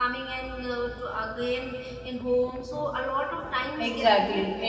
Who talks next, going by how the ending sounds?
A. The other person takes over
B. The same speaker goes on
A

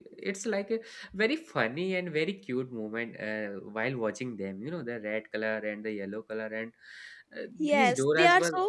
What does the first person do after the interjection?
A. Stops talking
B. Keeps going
A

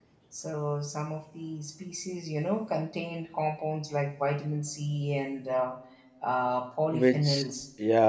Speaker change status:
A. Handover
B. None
A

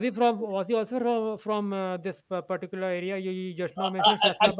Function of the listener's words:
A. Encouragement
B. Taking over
B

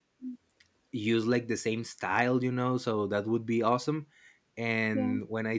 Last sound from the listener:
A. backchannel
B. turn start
A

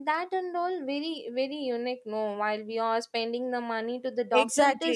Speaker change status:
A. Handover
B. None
A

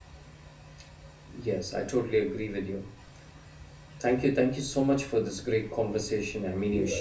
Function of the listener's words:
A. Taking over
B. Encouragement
A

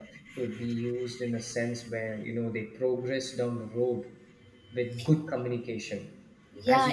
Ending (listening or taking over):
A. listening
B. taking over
B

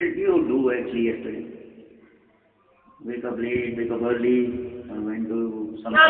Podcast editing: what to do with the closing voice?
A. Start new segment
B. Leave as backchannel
A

